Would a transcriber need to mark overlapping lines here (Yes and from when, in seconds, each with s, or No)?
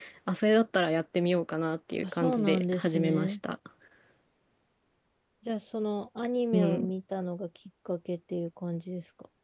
Yes, from 2.0 s